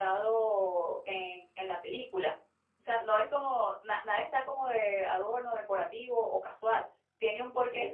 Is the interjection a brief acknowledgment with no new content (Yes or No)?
Yes